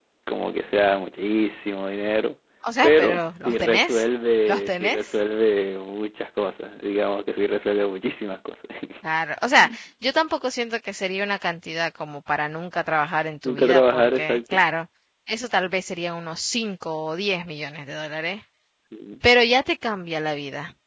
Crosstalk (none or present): present